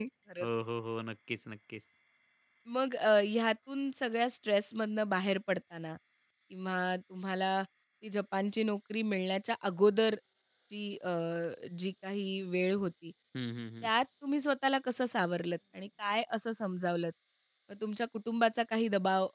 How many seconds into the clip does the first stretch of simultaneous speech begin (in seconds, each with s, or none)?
none